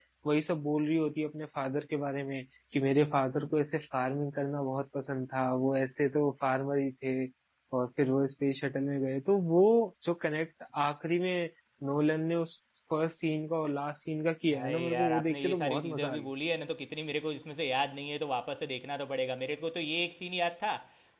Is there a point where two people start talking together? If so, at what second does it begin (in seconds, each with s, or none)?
14.5 s